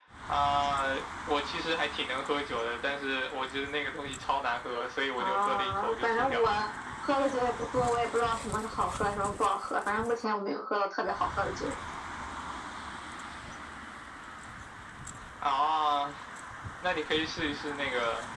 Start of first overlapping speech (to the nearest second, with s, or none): 5 s